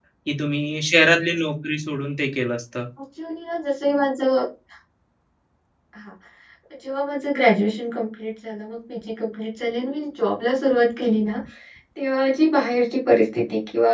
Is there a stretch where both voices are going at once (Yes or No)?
No